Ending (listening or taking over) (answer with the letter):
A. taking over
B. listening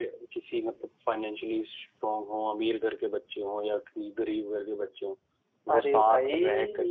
B